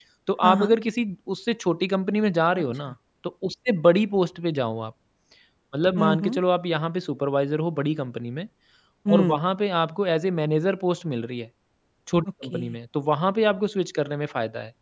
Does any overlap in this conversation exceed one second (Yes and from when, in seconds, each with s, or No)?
No